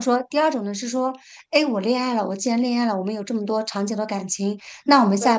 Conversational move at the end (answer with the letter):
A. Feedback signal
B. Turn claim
A